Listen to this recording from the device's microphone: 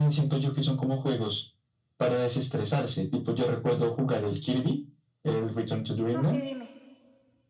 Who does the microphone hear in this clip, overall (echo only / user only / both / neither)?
both